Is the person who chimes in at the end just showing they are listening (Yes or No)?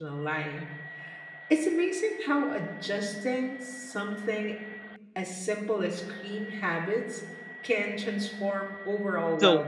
No